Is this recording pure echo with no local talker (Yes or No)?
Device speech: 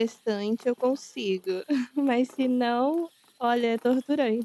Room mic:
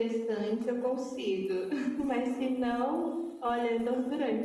Yes